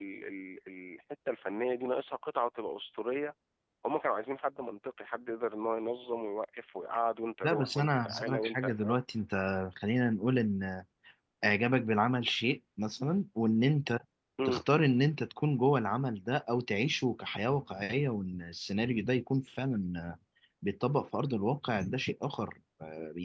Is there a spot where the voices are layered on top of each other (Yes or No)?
Yes